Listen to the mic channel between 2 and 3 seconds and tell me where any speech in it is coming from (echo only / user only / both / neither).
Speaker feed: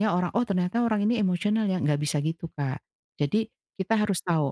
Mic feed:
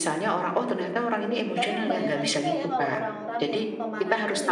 both